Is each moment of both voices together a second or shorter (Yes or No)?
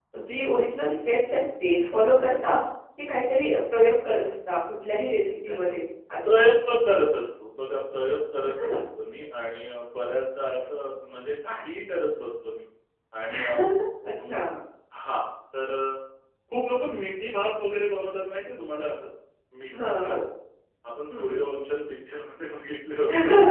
Yes